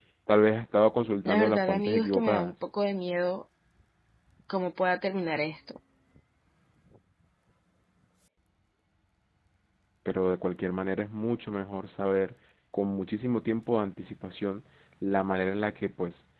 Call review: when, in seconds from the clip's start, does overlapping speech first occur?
1.2 s

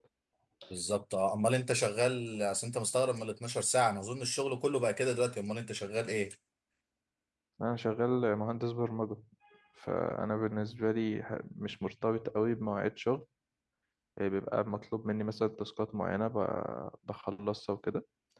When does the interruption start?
none

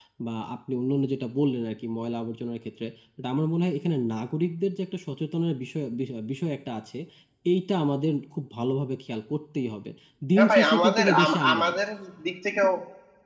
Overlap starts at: 10.4 s

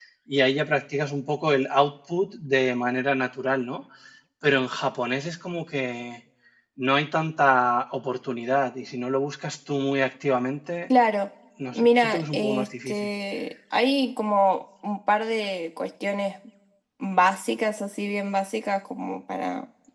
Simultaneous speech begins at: 11.7 s

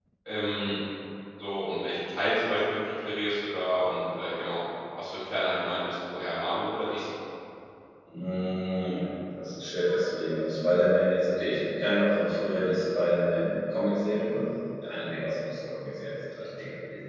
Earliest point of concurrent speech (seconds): none

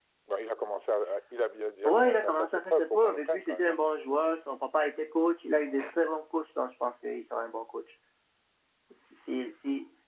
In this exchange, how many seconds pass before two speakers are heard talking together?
1.8 s

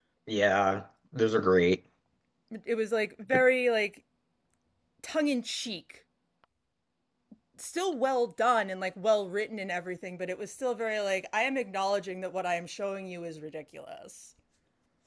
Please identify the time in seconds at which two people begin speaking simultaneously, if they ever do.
none

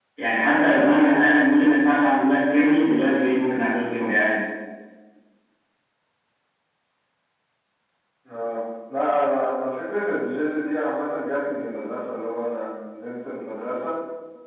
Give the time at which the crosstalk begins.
none

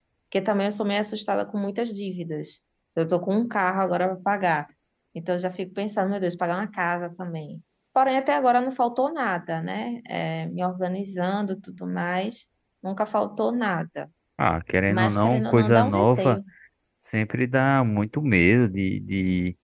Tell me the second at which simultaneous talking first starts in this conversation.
14.9 s

